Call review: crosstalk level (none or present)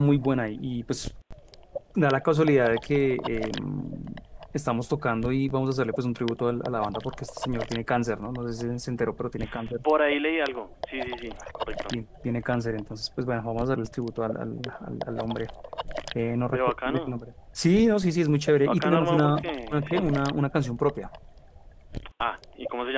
present